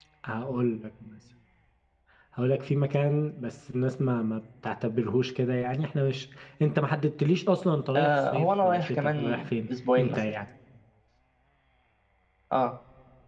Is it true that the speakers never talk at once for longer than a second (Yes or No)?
No